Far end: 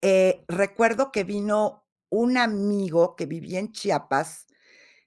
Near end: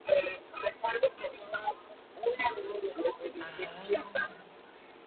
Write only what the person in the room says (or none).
Ajá.